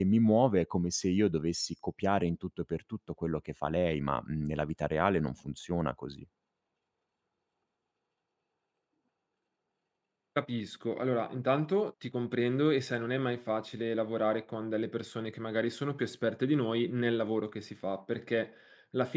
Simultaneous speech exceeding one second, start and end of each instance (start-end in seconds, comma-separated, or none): none